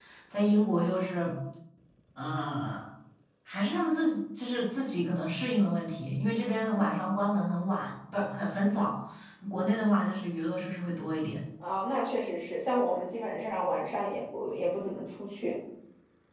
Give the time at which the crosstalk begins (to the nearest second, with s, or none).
none